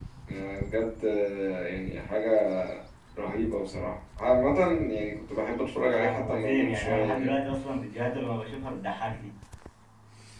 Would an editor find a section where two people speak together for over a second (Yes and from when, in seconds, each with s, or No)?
Yes, from 5.9 s